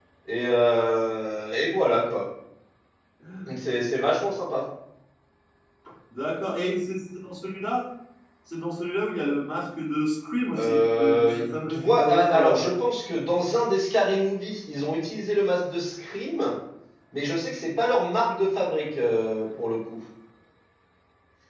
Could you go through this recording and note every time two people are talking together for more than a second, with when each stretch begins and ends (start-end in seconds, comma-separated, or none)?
10.6-12.6